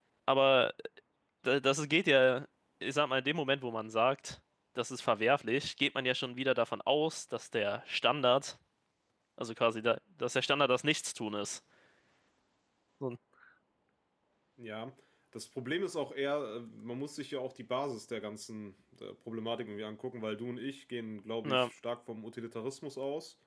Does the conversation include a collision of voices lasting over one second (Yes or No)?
No